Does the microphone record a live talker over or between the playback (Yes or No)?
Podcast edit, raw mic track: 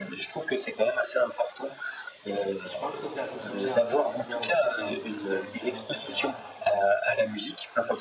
Yes